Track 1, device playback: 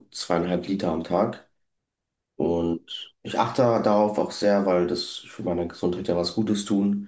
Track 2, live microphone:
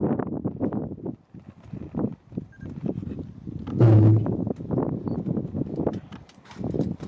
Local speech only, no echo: Ähm,

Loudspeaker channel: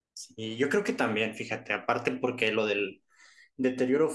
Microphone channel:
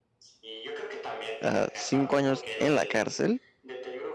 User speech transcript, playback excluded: Ah, ¿cinco años en la cárcel

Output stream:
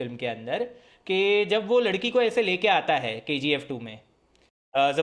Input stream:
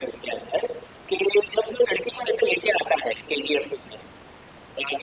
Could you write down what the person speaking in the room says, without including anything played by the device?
none

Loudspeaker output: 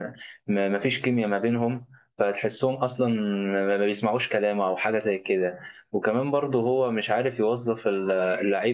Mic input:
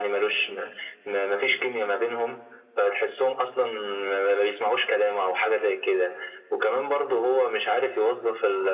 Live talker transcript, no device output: none

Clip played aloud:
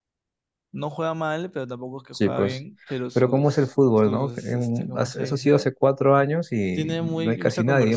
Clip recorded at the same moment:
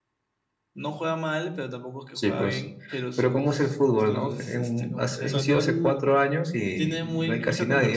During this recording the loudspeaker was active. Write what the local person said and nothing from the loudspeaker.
Ganó el,

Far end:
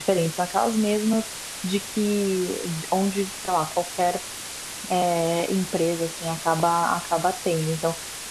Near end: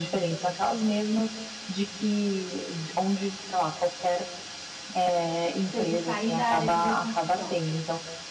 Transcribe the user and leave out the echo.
Você de sair da área de bioconstrução.

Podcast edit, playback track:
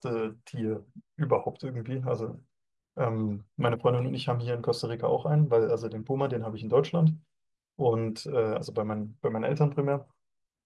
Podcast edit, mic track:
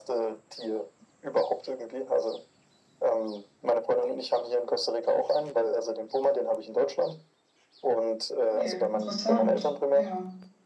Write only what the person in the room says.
Okay, interessant. Ja.

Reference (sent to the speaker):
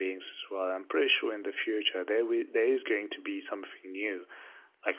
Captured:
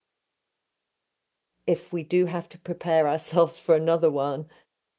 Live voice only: if we do have to prepare ourselves for another one,

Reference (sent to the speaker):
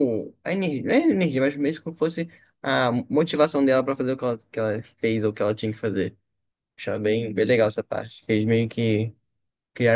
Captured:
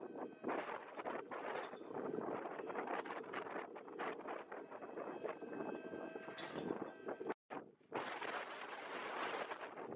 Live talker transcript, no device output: none

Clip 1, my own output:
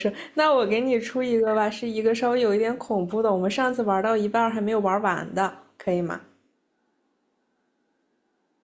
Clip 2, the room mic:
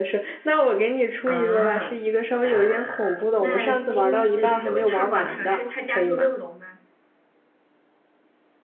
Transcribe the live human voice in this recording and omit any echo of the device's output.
啊，呃，那今那我他往常是他家住六楼吗？

